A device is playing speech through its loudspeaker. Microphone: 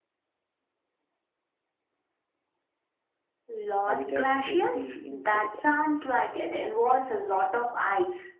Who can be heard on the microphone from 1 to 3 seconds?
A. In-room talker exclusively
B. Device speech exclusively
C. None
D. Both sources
C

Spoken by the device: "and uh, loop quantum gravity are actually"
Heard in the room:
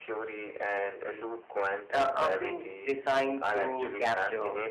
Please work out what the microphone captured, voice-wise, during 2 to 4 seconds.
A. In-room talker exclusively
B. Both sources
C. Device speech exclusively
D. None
B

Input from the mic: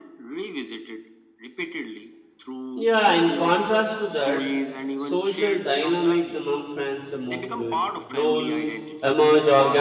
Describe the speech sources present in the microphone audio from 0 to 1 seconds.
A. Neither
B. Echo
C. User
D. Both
B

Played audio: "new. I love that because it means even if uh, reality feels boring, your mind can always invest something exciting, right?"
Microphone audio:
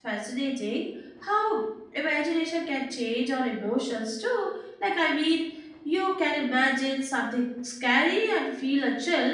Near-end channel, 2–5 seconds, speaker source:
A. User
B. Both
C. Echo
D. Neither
A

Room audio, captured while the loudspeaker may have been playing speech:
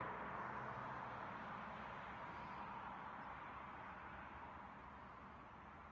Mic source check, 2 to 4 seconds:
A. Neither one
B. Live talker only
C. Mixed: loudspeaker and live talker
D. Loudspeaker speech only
A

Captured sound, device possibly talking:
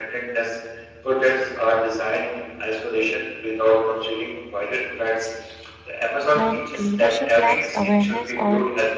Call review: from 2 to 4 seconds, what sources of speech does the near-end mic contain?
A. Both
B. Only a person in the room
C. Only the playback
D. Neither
C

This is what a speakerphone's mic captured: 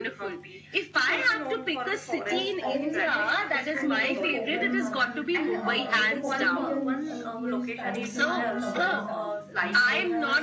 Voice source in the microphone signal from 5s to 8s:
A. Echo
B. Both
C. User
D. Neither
B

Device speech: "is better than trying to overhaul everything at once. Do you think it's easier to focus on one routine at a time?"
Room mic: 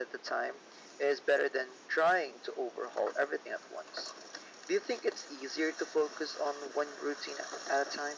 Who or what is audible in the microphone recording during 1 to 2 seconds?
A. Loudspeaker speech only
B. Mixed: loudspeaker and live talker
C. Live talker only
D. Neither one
A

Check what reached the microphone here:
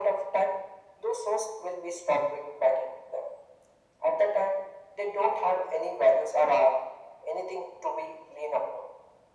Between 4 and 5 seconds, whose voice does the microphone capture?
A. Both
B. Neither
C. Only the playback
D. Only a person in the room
C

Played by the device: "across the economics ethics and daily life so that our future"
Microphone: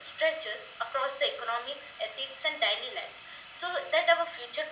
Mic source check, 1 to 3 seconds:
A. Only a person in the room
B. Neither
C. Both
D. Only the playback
D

